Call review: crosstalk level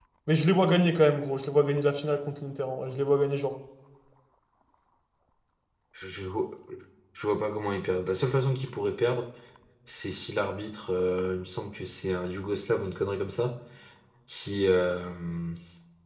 none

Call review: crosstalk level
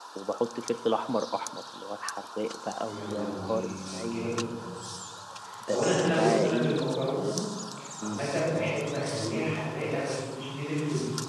present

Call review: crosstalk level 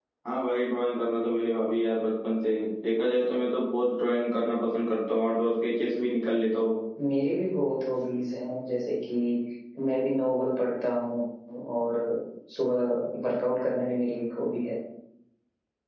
none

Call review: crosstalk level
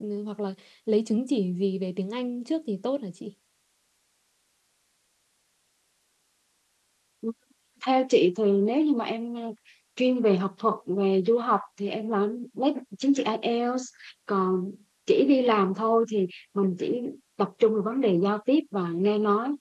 none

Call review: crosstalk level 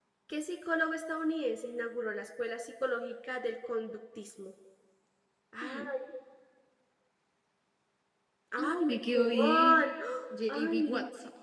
present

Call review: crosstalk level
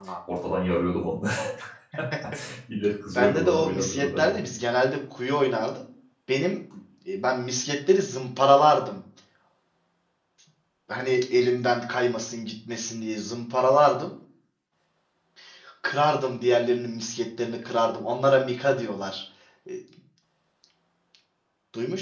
present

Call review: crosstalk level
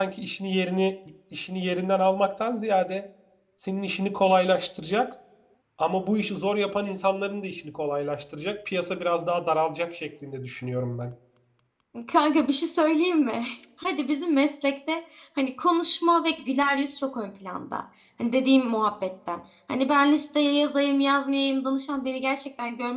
none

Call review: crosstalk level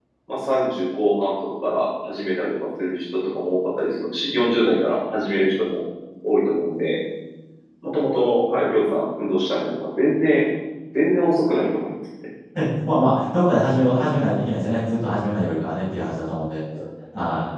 none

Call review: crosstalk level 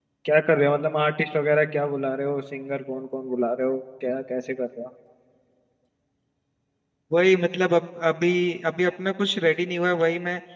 none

